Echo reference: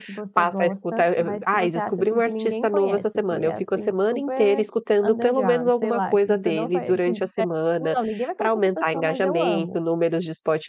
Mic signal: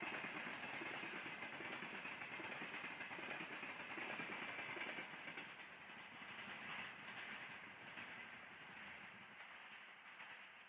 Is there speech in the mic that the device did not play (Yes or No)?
No